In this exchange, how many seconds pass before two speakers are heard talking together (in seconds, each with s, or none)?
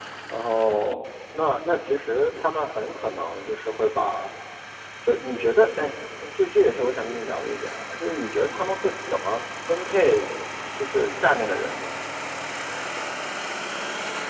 none